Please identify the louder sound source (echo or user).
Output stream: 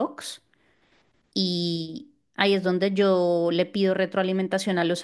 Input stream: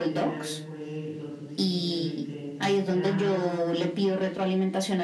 echo